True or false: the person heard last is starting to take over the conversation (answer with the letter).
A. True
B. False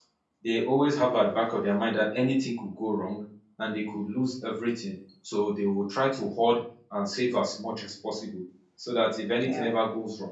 B